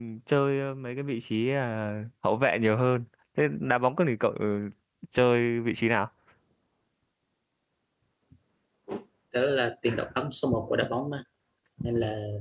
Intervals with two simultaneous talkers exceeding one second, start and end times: none

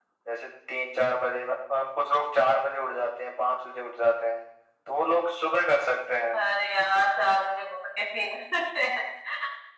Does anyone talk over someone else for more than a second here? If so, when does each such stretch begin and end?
none

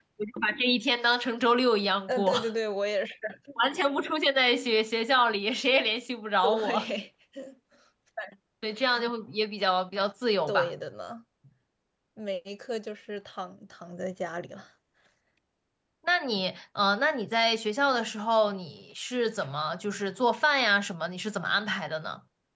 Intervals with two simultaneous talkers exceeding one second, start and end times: none

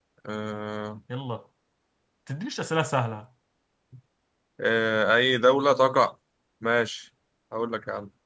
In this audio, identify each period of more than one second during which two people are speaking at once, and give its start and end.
none

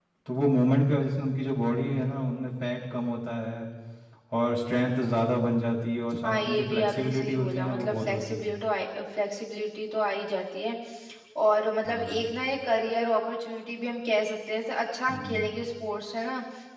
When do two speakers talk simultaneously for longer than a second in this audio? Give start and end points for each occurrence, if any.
6.2-8.5

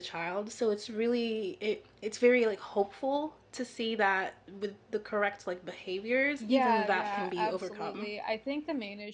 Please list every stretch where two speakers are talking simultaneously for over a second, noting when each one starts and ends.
6.4-8.1

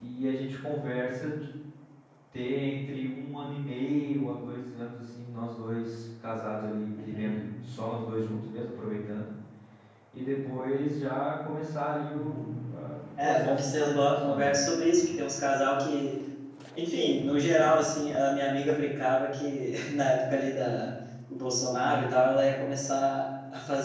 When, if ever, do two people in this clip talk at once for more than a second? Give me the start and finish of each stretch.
13.2-14.6

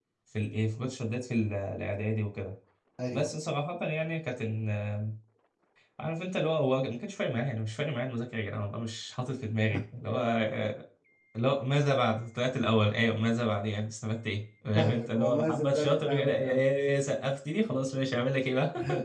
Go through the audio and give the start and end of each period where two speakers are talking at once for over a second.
14.7-16.6

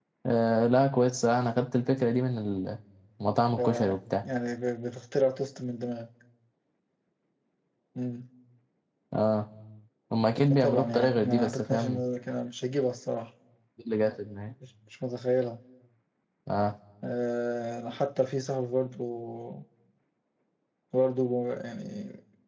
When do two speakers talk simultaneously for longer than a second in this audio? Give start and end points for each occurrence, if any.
10.5-12.0

